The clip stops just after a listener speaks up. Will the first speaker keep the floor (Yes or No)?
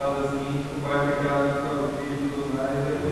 No